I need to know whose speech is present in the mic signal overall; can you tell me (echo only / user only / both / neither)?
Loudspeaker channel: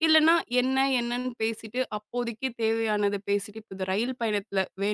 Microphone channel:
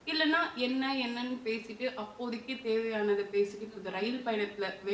both